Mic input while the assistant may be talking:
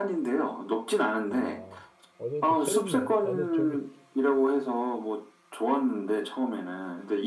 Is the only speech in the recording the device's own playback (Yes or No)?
No